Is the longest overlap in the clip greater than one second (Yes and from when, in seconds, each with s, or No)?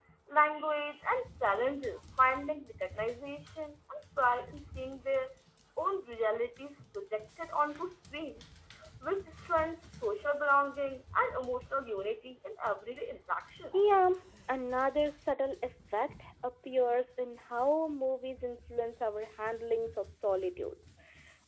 No